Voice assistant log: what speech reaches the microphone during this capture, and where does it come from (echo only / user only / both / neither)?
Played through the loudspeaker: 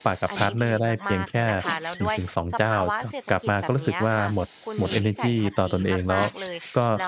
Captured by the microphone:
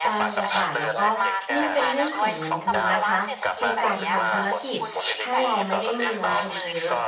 both